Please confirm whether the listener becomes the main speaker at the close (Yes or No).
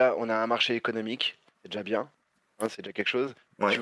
No